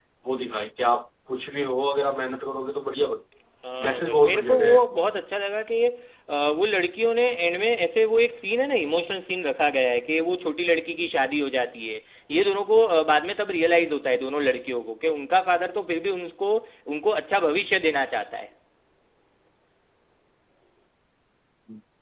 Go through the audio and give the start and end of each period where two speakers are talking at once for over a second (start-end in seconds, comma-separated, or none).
3.8-5.0